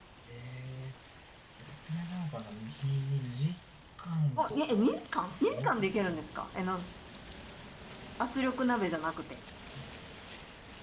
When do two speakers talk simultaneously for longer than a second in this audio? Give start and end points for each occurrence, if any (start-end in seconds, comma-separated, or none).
4.4-5.8